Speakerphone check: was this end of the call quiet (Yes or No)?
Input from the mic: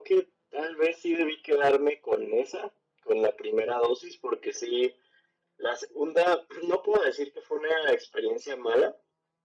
Yes